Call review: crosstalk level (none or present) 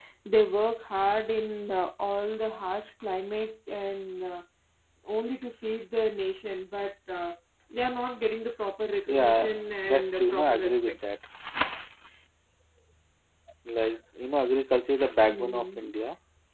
present